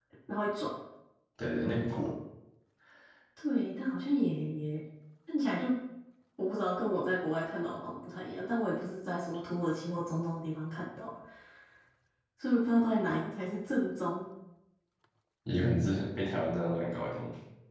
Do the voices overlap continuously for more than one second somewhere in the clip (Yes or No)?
No